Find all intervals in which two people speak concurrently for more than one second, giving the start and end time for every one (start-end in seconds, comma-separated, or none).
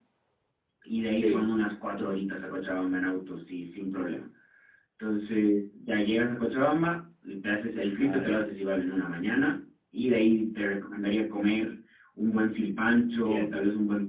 none